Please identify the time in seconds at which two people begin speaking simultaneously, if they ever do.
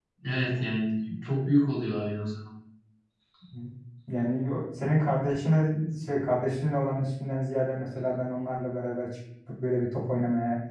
none

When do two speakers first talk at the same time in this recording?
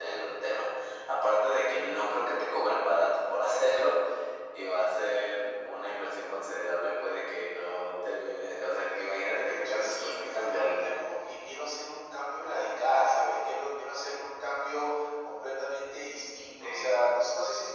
9.4 s

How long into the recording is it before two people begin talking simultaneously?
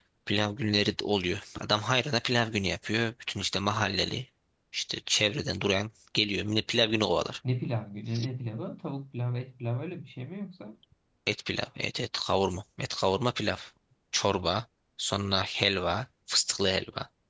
none

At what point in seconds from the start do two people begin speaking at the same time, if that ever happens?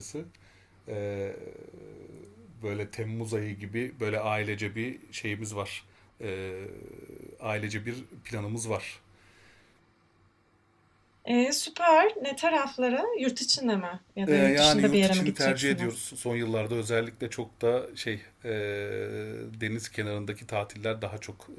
14.2 s

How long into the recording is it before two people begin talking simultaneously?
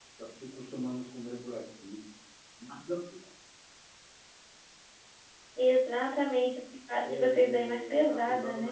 7.0 s

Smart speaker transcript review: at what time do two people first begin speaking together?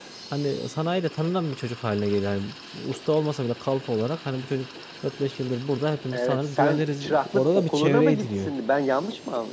6.1 s

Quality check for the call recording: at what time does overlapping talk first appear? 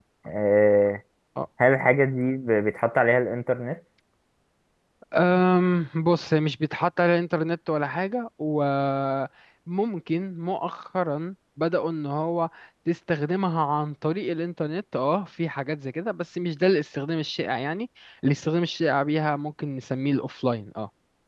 none

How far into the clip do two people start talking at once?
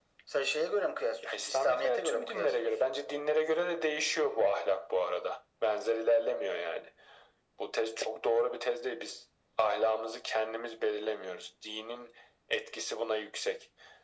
1.2 s

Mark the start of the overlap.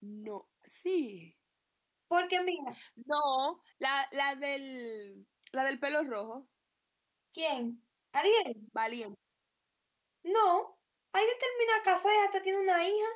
none

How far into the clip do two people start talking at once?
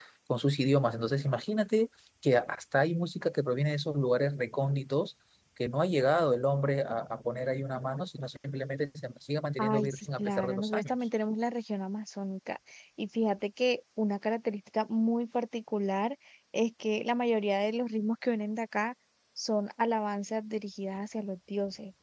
9.6 s

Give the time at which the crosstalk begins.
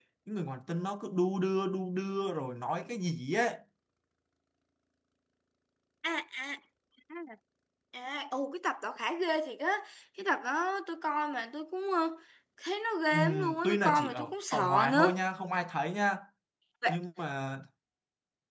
13.1 s

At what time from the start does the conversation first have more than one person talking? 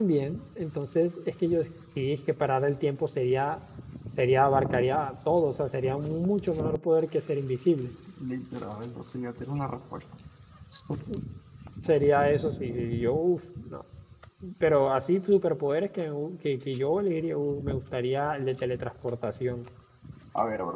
none

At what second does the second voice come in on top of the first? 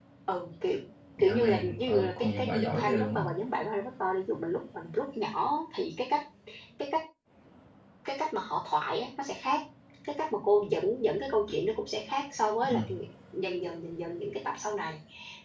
1.2 s

